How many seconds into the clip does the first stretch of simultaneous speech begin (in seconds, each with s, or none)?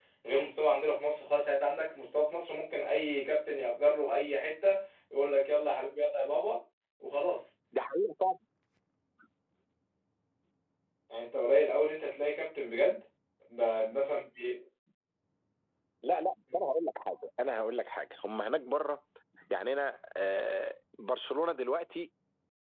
none